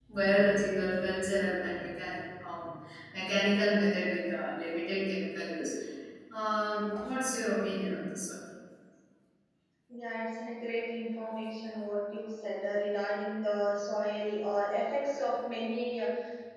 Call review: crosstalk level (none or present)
none